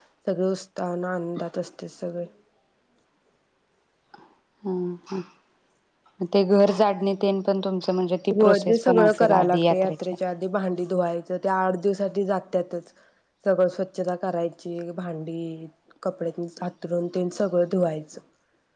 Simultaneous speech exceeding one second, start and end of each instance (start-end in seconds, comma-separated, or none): 8.4-10.0